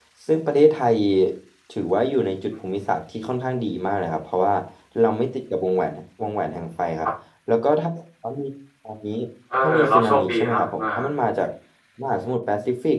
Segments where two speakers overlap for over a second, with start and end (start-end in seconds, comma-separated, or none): 9.6-10.8